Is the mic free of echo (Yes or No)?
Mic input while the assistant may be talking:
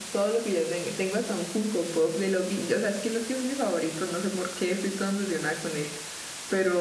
Yes